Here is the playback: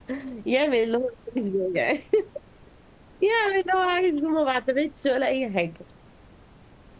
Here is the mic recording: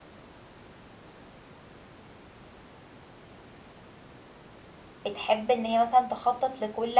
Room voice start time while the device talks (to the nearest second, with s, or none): 5 s